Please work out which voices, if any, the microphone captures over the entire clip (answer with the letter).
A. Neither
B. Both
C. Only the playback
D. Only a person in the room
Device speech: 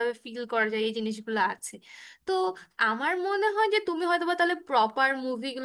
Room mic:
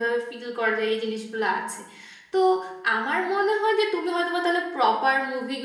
C